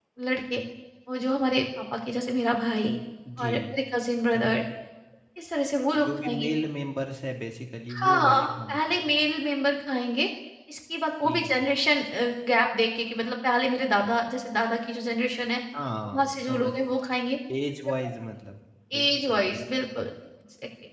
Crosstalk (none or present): present